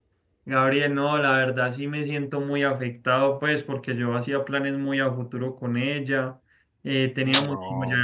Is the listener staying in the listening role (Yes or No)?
Yes